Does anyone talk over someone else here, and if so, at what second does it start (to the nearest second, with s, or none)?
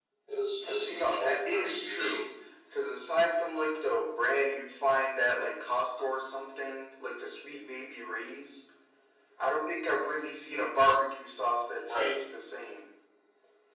1 s